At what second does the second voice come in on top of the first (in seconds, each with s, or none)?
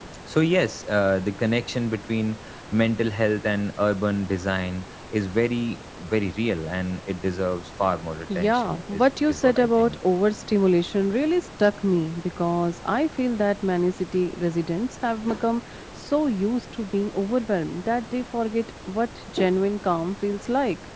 8.3 s